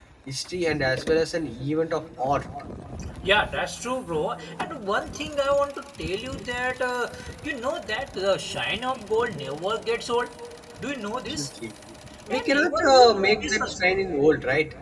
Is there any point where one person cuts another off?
Yes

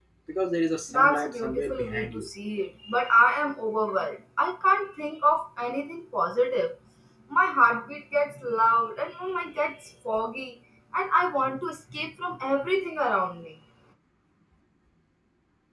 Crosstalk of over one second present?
Yes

